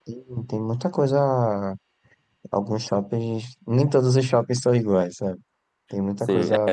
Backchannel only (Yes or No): No